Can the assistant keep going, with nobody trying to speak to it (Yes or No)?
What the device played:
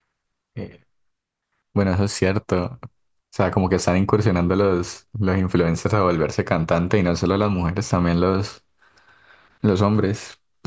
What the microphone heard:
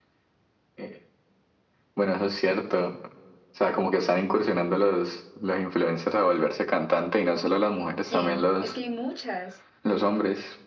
No